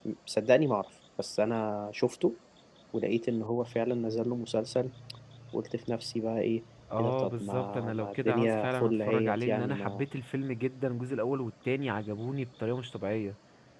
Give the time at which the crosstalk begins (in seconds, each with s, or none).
7.0 s